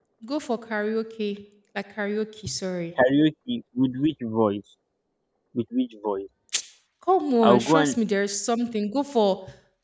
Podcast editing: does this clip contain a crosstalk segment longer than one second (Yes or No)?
No